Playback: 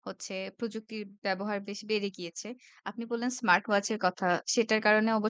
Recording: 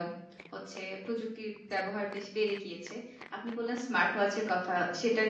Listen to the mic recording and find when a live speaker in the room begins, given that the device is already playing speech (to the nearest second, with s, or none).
none